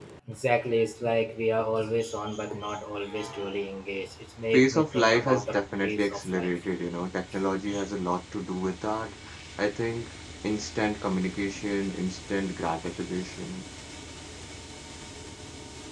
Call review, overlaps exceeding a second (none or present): present